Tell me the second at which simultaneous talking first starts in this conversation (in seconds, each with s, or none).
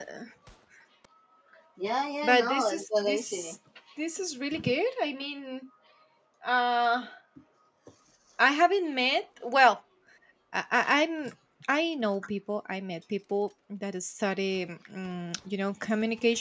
2.2 s